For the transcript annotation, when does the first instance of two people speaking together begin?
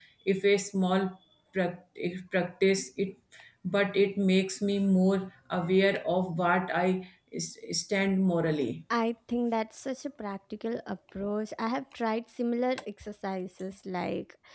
none

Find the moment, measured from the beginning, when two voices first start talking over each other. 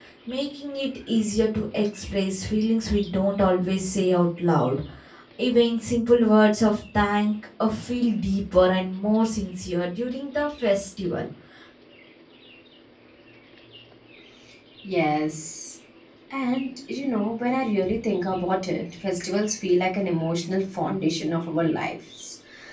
none

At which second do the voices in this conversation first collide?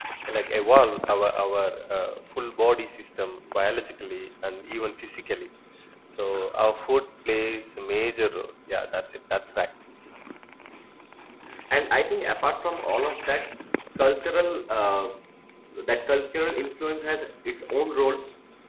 none

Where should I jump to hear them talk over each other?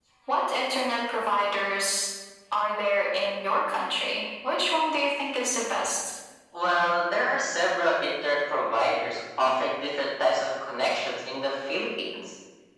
none

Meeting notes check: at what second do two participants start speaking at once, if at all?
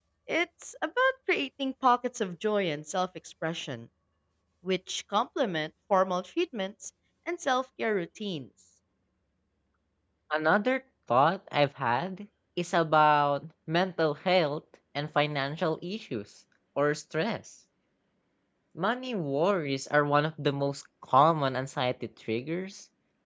none

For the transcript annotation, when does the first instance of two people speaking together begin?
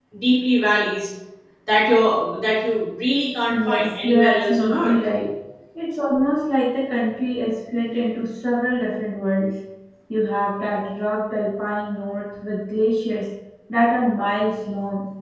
3 s

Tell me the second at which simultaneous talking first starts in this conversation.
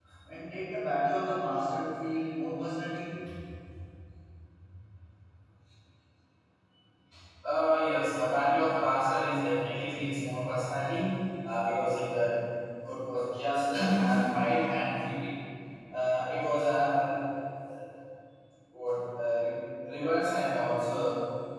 none

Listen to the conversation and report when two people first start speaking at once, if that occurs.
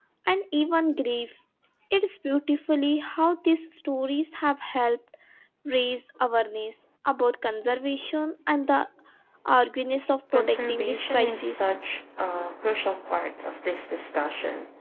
10 s

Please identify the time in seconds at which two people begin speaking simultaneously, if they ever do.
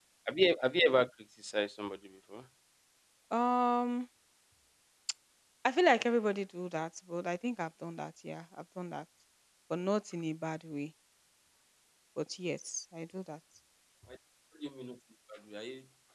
none

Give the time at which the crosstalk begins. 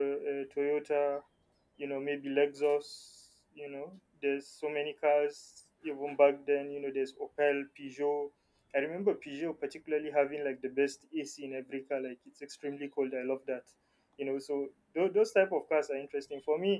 none

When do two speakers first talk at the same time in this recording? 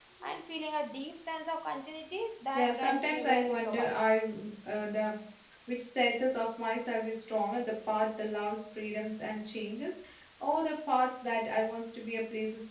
3 s

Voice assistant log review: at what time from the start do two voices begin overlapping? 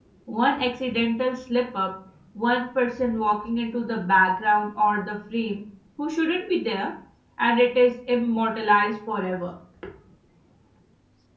none

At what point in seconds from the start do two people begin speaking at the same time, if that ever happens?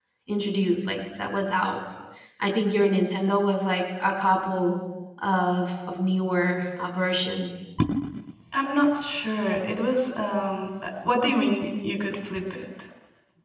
none

